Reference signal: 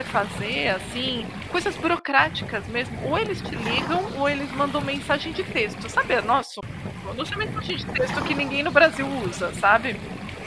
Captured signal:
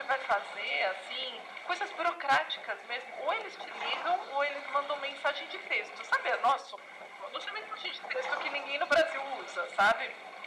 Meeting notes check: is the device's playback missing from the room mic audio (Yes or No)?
No